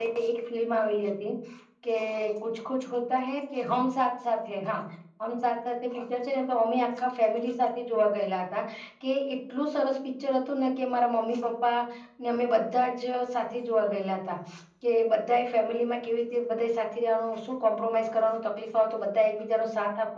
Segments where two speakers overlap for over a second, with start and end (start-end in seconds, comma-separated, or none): none